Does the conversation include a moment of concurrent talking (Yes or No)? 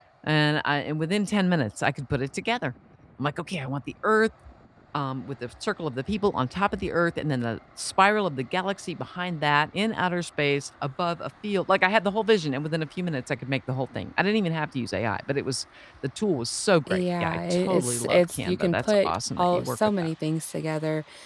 Yes